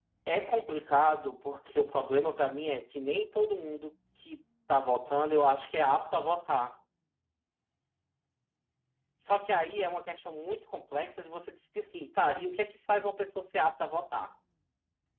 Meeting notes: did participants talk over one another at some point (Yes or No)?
No